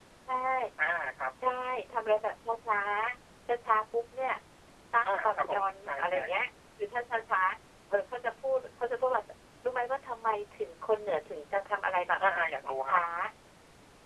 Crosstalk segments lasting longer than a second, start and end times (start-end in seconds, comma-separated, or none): 5.1-6.4